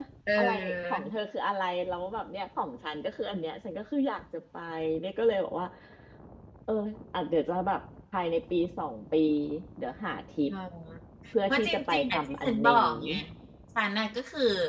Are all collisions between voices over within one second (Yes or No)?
No